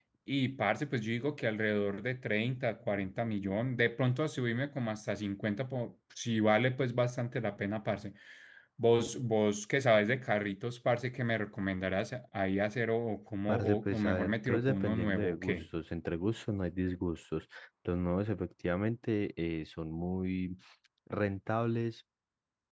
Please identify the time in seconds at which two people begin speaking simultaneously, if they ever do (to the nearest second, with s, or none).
13 s